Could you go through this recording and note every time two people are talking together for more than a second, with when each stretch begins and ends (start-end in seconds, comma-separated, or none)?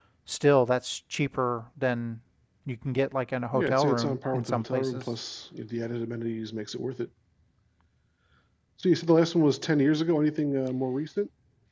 3.5-5.0